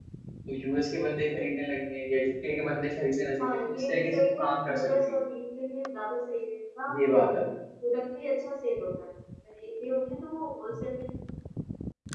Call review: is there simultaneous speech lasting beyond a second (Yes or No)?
Yes